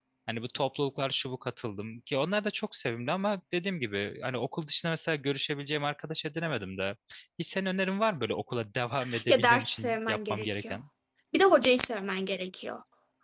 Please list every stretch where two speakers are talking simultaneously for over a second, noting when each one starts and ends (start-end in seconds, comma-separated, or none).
9.3-10.8